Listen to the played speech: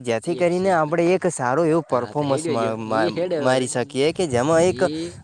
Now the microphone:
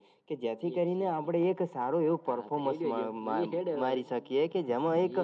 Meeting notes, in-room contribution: none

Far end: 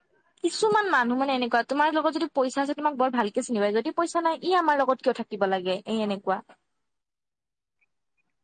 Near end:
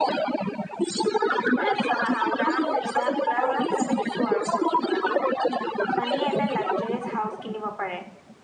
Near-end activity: present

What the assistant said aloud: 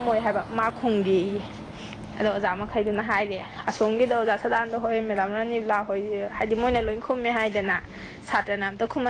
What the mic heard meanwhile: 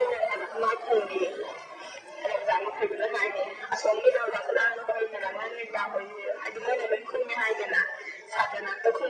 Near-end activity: none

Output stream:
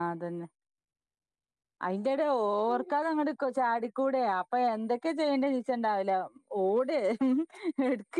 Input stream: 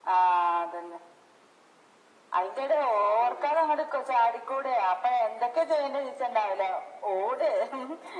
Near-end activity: none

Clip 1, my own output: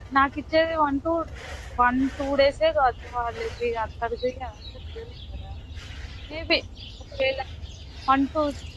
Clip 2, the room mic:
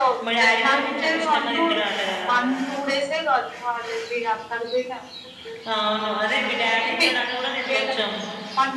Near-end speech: present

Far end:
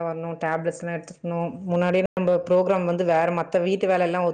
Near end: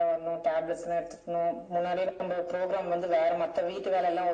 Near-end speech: none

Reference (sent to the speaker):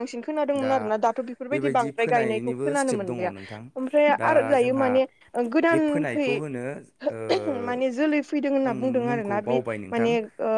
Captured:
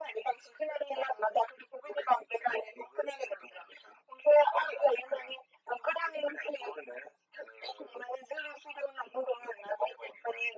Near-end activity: none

